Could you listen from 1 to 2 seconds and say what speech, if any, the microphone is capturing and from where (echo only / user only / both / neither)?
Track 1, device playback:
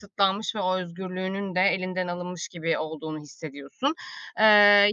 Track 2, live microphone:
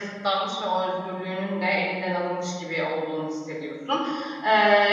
echo only